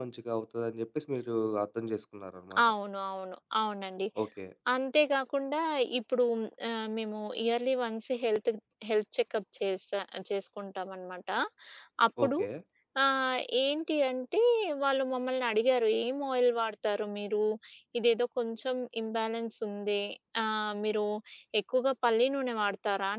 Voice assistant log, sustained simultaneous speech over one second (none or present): none